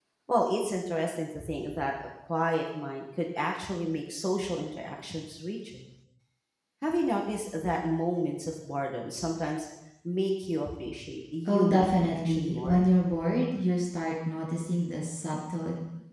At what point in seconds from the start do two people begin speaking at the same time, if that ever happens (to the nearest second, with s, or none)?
11 s